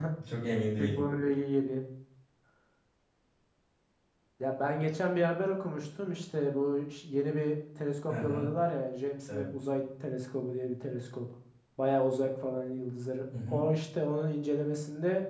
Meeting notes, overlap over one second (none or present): none